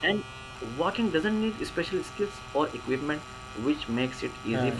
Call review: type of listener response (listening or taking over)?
listening